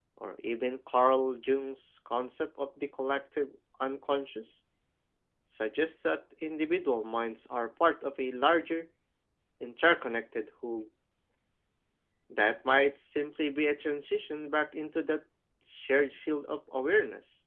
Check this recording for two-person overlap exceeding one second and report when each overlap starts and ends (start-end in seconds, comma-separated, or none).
none